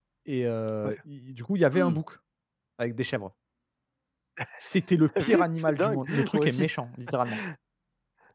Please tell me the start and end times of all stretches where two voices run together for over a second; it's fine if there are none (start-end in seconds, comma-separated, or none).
5.2-6.6